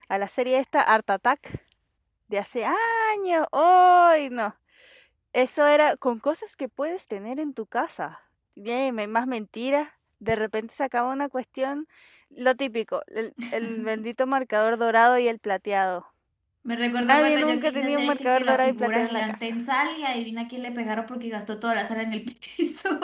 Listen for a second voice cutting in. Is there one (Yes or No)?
Yes